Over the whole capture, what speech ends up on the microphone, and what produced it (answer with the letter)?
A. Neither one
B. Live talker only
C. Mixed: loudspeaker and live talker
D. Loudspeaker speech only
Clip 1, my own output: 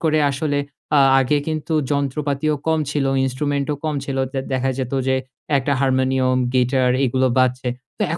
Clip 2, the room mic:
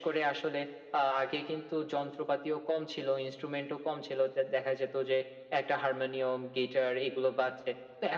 D